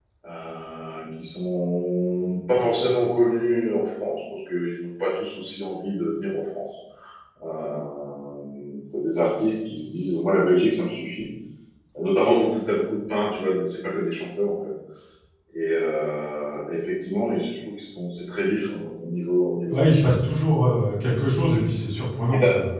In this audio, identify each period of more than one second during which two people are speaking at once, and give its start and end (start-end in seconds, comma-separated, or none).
none